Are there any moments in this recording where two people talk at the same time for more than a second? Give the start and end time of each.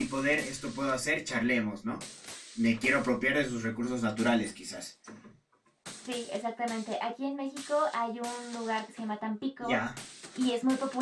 none

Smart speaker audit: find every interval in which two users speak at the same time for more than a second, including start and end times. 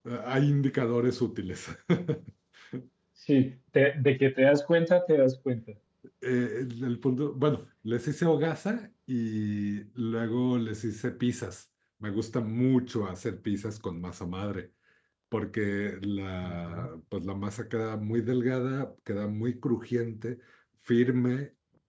none

